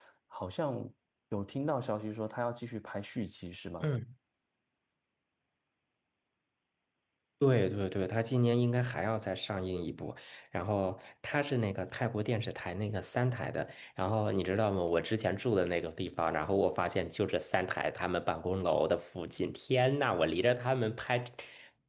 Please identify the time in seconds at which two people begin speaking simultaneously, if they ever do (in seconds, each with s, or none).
none